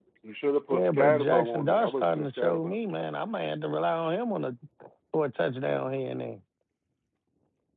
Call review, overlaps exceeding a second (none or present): present